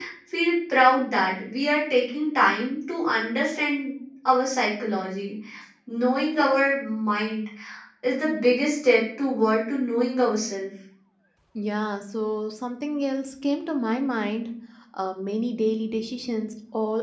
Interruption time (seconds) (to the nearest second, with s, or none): none